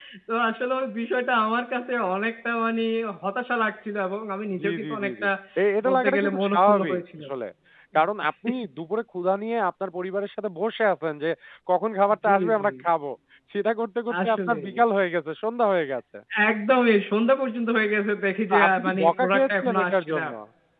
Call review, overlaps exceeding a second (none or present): present